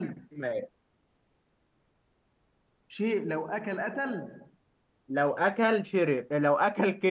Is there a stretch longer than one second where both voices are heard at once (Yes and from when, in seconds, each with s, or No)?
No